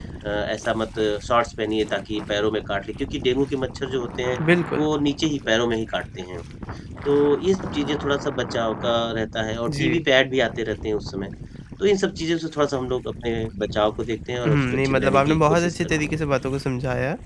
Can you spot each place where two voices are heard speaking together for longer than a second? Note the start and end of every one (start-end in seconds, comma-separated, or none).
14.4-16.2